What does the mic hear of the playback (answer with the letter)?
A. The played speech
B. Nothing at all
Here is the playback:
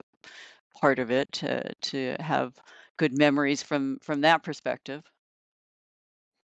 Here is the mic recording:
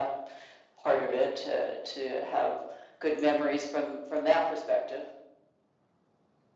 A